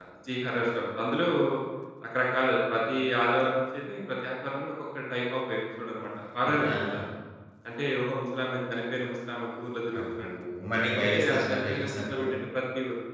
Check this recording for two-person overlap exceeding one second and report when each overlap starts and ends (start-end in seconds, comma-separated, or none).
10.9-12.2